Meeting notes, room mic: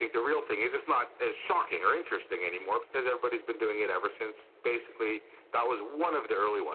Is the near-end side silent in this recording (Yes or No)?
Yes